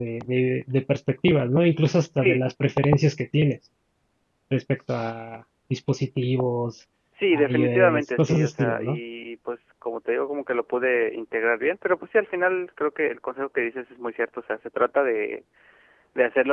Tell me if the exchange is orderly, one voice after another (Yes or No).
No